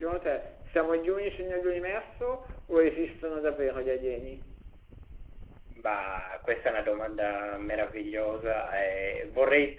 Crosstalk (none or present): none